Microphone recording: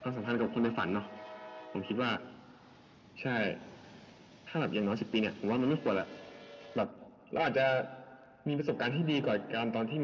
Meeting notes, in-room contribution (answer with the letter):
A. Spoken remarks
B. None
B